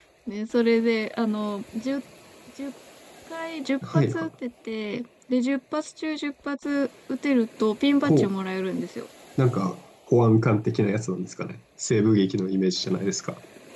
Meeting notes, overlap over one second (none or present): none